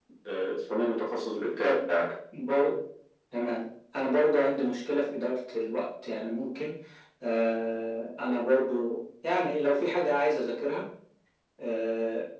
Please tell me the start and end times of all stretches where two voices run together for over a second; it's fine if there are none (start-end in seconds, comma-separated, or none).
none